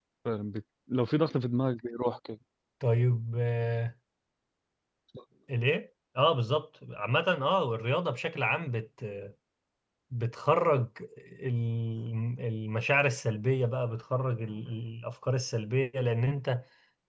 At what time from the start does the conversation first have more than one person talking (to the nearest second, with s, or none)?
none